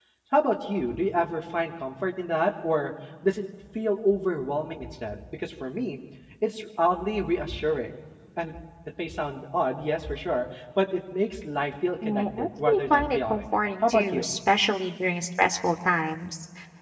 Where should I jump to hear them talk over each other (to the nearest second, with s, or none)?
12 s